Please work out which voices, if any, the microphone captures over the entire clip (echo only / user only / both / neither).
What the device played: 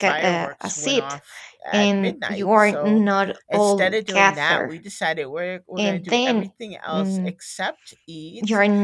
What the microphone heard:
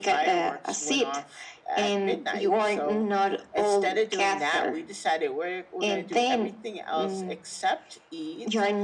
echo only